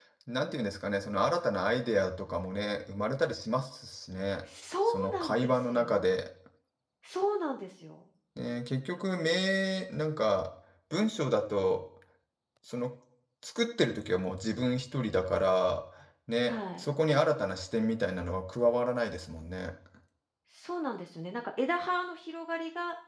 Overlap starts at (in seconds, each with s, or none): 4.9 s